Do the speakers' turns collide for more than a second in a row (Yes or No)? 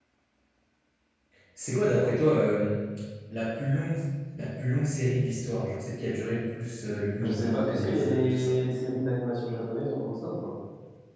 Yes